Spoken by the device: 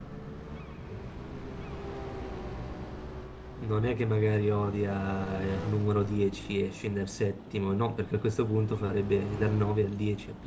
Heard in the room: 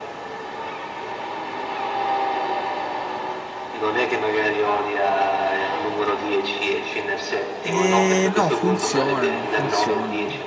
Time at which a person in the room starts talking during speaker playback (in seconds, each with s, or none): 7.6 s